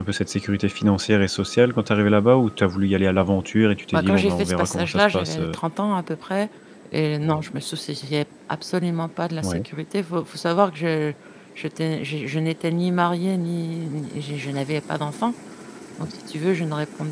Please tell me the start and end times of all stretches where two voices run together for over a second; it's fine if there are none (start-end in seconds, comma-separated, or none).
3.9-5.6